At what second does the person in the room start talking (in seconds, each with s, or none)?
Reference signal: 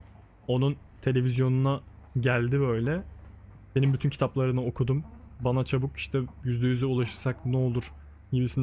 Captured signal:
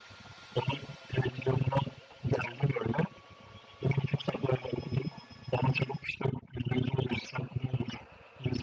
none